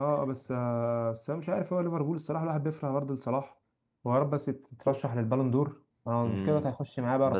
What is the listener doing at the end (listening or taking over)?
taking over